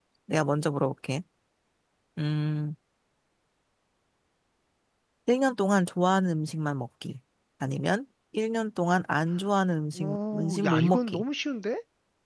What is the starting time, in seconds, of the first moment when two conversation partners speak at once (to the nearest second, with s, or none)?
10 s